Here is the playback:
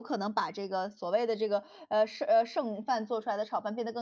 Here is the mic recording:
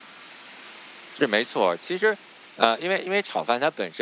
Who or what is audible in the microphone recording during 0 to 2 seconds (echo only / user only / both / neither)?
user only